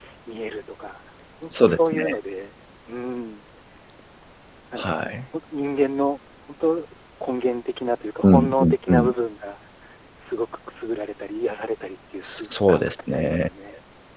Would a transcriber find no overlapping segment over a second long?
No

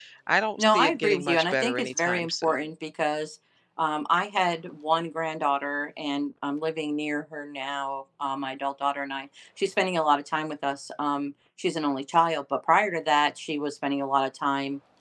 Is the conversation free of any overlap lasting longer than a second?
No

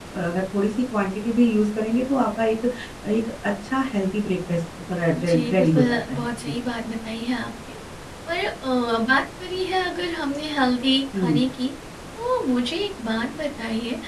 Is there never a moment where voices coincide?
No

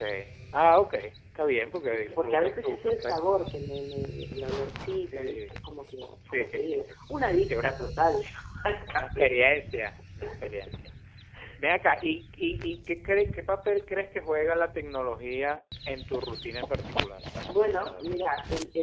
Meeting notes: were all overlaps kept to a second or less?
No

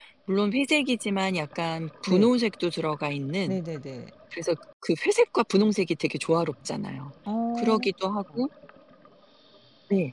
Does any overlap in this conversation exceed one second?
No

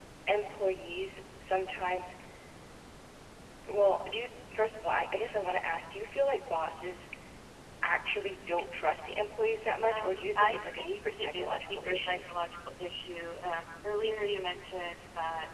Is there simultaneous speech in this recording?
Yes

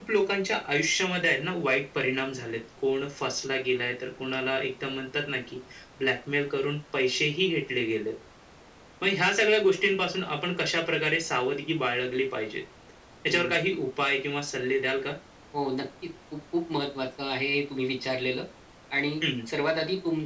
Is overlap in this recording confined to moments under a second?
Yes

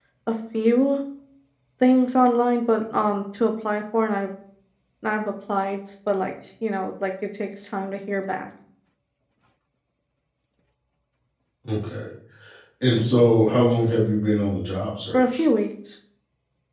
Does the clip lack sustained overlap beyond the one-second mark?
Yes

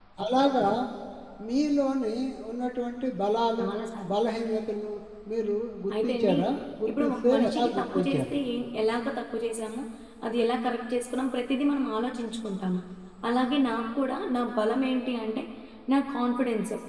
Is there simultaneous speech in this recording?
Yes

